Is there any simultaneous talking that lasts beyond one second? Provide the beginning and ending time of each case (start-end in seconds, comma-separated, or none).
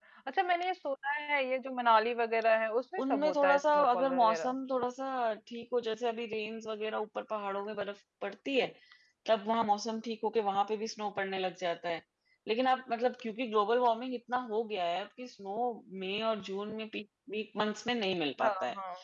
3.1-4.5